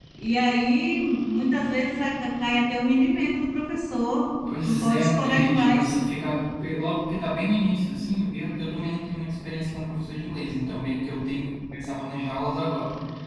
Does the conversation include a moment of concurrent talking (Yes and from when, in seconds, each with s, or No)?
Yes, from 4.5 s